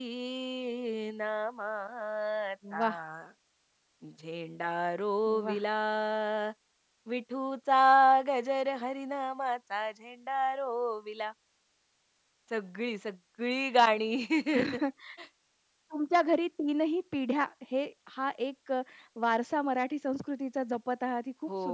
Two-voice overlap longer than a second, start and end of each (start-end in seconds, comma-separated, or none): none